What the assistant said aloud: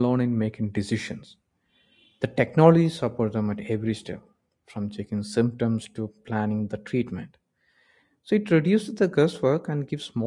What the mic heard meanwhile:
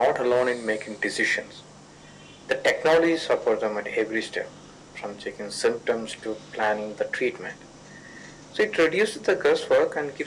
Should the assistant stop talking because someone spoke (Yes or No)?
No